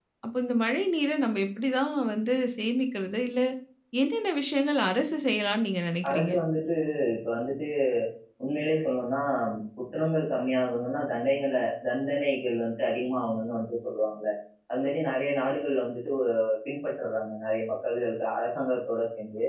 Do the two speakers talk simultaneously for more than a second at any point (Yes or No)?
No